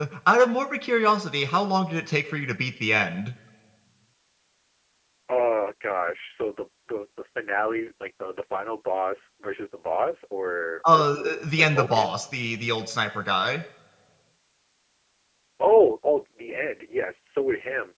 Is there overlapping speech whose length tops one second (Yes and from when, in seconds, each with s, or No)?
Yes, from 10.8 s